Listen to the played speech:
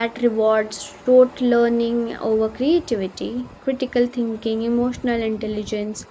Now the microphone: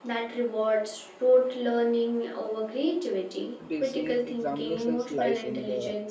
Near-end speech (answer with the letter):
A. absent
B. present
B